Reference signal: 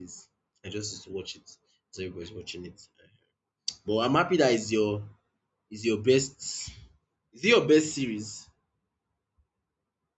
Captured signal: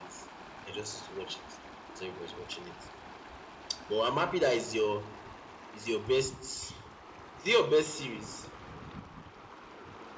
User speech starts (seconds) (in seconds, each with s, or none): none